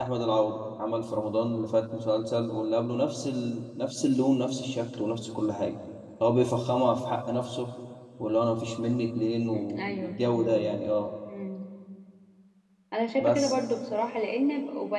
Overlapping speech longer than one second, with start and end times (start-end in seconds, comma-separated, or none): 9.5-10.7